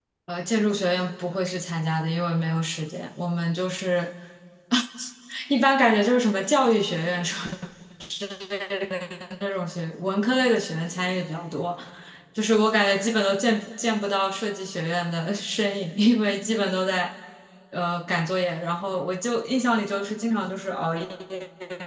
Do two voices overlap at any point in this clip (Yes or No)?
No